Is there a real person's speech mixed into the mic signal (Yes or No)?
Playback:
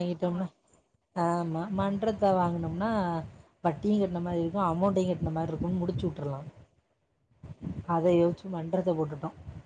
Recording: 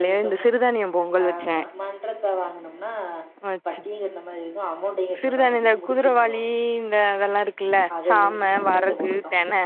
Yes